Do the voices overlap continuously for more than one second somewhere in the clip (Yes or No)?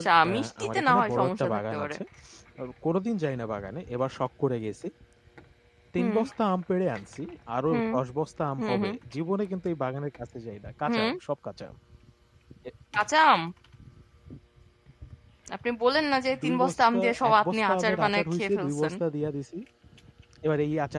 Yes